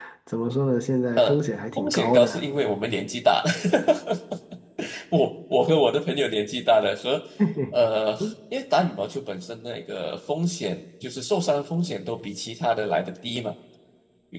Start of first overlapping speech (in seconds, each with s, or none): 1.2 s